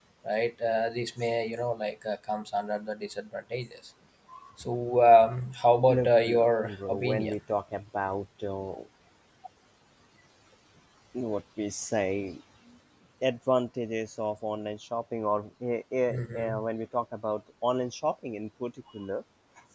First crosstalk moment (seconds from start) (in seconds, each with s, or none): 5.9 s